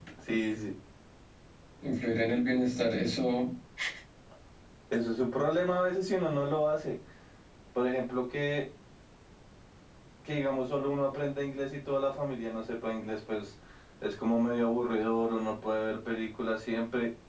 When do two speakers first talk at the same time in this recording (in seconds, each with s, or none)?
none